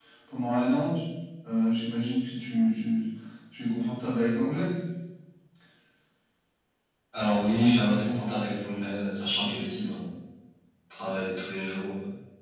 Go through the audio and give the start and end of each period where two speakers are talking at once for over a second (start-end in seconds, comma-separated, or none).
none